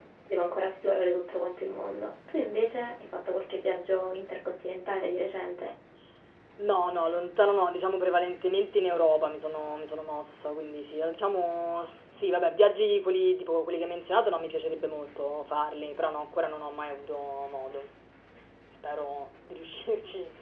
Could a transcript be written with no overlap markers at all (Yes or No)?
Yes